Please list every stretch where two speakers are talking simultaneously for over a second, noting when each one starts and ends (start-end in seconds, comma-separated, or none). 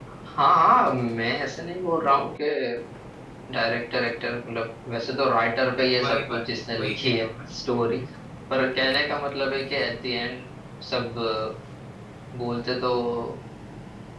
6.0-8.0